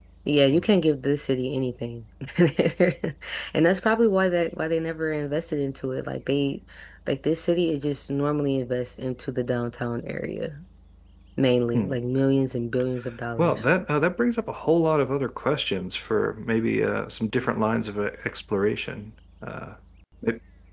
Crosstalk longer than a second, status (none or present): none